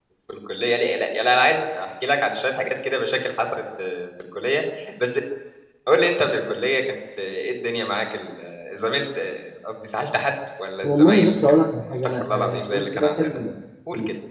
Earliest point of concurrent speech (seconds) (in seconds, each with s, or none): 10.8 s